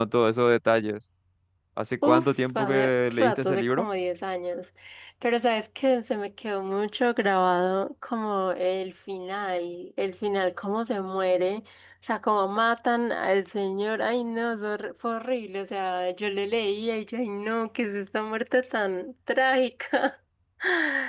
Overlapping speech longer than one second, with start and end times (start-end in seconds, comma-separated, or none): 2.0-3.9